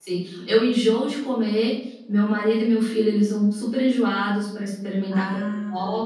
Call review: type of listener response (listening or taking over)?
listening